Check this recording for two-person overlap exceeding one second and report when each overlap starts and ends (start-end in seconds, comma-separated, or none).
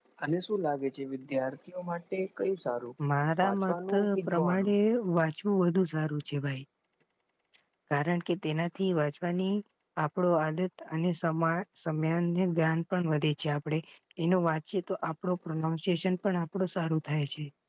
3.5-4.7